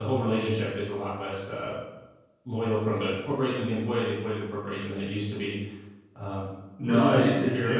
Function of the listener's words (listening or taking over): taking over